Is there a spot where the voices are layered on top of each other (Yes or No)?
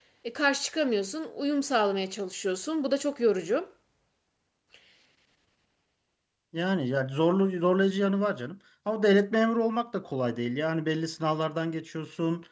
No